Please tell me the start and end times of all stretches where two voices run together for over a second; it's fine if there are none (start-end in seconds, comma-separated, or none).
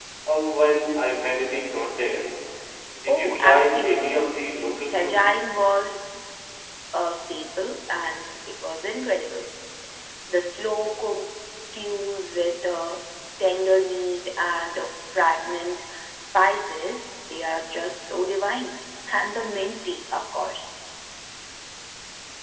3.1-4.3